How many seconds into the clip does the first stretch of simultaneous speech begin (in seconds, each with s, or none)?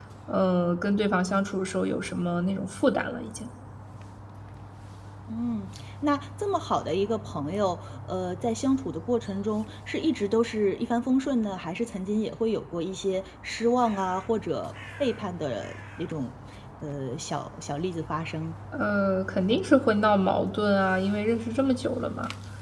none